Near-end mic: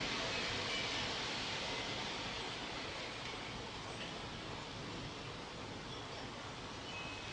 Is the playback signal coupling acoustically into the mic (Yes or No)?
No